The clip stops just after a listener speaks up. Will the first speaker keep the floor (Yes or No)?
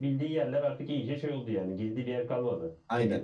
No